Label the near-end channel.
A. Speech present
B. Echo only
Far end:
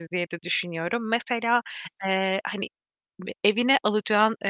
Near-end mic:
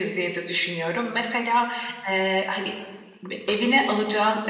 B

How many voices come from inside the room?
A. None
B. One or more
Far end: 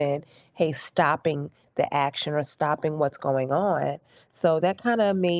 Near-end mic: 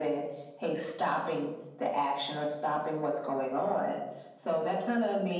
A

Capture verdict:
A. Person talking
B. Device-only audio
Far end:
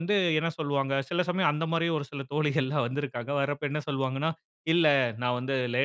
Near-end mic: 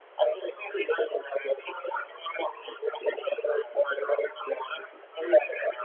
B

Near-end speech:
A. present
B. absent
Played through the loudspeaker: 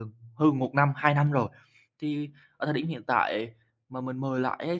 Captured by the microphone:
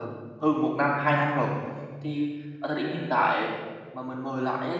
B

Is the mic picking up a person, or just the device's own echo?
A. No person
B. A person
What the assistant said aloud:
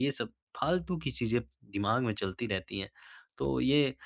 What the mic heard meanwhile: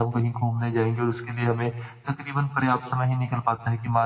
B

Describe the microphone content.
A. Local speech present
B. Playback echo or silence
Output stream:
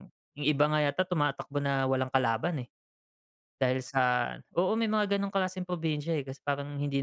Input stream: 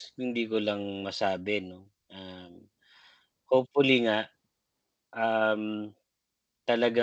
A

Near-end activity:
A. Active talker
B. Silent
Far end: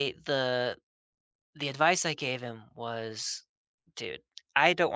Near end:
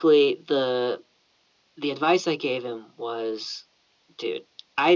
B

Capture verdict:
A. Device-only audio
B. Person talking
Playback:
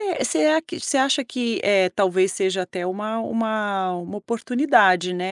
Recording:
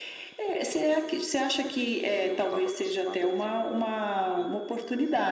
B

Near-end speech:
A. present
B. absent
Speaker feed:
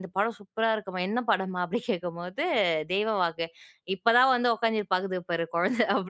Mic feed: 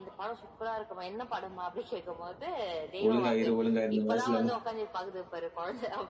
A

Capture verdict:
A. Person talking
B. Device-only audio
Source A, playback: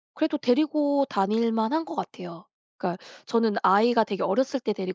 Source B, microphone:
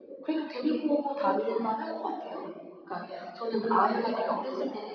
B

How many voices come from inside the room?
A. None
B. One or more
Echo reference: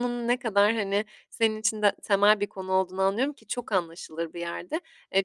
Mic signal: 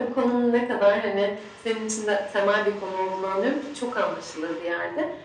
A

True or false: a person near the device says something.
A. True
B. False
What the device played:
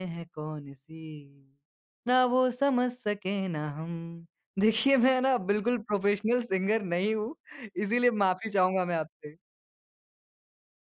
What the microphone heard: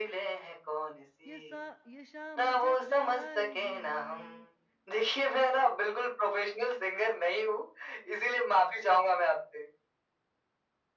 A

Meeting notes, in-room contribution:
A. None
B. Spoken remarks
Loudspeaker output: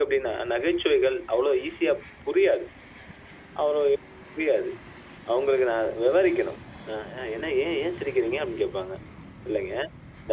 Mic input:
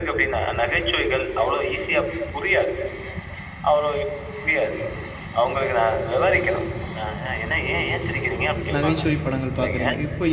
B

